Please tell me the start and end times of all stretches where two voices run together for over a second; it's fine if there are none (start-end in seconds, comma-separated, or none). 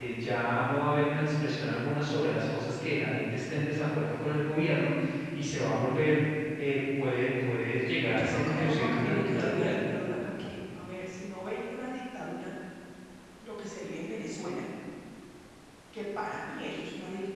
8.1-9.7